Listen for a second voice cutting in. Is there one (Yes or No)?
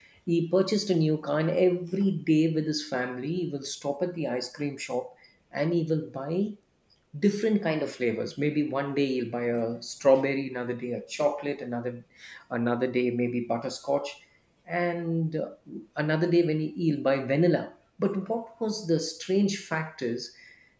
No